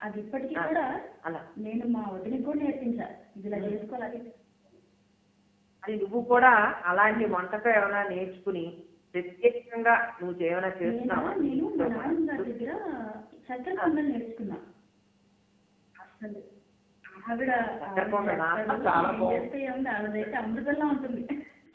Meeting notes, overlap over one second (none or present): present